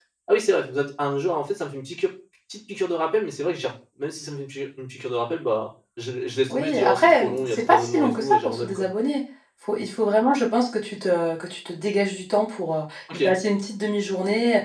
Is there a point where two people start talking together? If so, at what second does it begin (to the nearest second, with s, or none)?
6 s